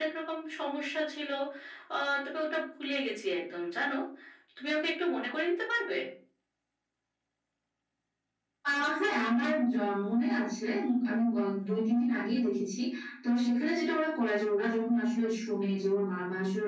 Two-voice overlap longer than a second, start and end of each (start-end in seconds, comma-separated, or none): none